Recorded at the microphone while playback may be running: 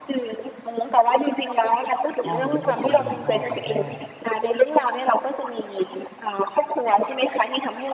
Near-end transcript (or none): พ่อจะไม่ค่อยตี พ่อจะแค่